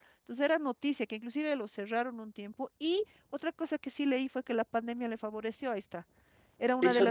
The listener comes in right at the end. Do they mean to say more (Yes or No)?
Yes